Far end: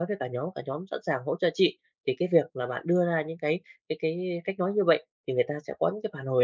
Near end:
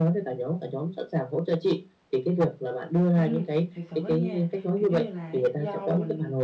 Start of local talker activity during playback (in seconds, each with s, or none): 3.1 s